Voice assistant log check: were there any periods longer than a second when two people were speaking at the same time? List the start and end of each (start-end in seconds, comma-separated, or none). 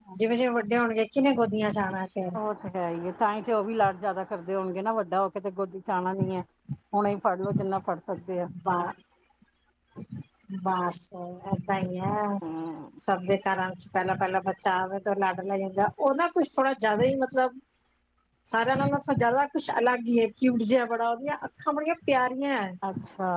none